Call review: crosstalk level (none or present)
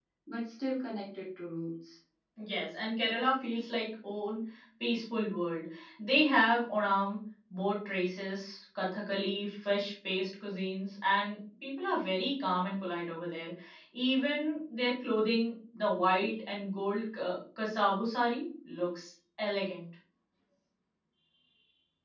none